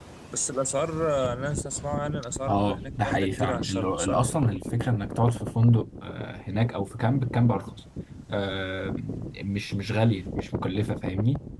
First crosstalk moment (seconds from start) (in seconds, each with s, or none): 2.5 s